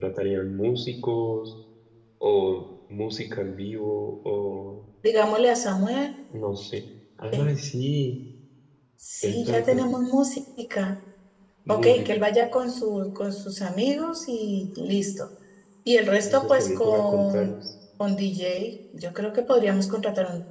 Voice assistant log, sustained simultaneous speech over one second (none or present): present